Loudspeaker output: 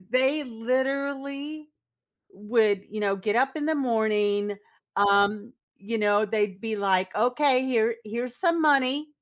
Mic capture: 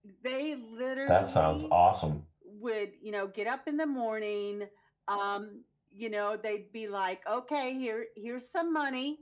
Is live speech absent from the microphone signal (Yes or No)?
No